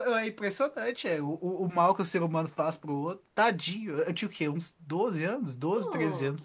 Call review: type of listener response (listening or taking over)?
listening